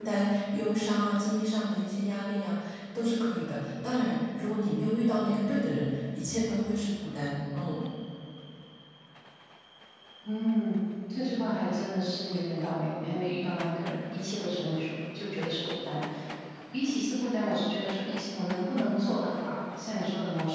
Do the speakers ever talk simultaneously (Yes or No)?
No